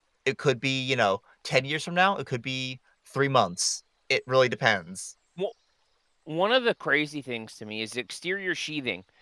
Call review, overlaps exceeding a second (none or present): none